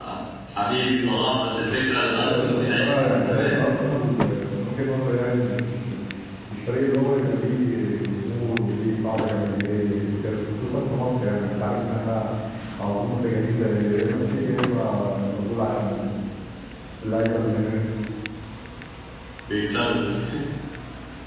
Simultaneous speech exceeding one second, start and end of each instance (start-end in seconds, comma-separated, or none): 2.1-3.6